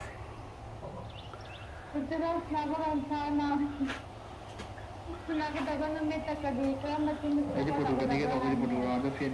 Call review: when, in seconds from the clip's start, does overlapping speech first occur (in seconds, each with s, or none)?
7.5 s